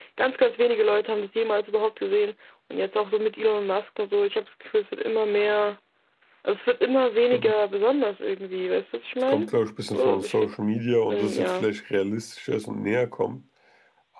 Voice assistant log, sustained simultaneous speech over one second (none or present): present